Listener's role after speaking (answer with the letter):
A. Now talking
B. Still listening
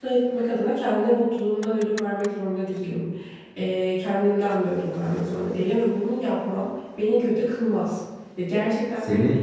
B